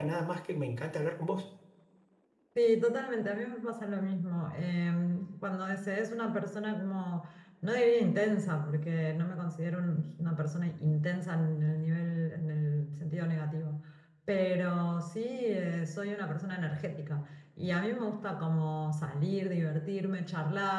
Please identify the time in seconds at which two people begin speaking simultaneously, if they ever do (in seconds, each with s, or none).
none